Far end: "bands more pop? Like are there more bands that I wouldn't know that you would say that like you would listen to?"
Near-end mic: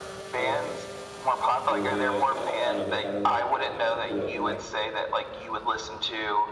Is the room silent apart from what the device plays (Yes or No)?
No